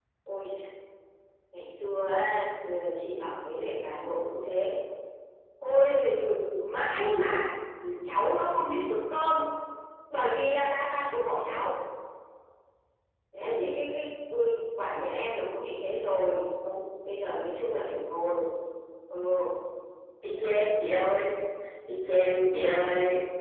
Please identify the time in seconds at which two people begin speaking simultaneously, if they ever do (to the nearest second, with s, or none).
none